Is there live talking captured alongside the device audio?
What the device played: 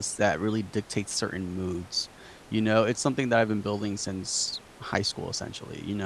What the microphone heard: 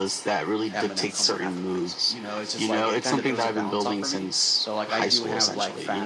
Yes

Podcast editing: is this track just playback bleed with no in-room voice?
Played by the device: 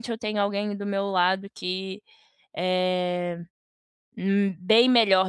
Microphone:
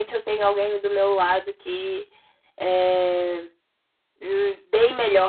Yes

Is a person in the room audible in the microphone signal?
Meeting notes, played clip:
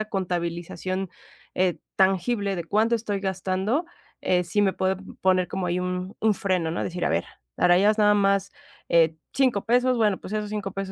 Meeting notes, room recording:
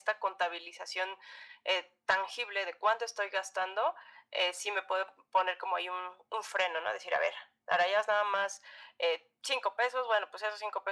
No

